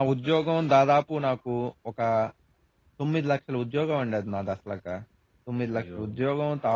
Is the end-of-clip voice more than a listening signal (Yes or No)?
No